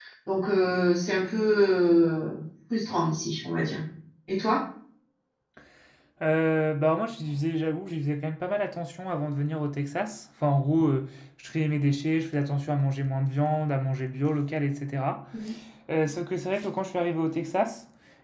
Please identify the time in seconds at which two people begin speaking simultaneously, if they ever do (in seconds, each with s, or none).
none